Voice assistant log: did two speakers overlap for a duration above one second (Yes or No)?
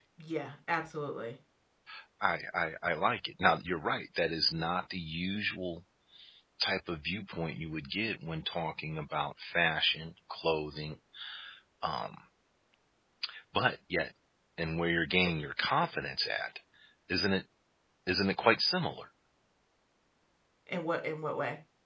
No